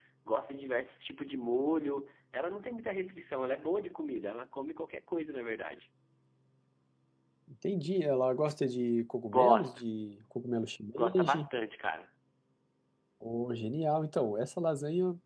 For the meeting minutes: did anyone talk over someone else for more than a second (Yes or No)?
No